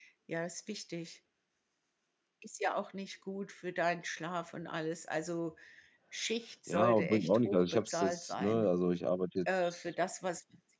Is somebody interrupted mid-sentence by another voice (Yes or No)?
Yes